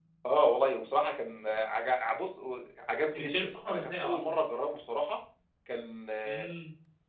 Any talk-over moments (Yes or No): Yes